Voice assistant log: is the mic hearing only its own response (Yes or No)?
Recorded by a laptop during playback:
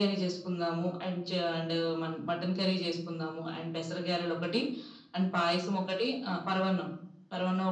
Yes